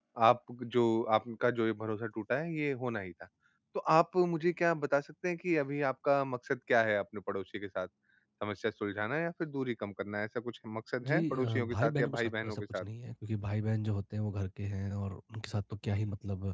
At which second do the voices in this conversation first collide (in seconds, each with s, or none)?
11.0 s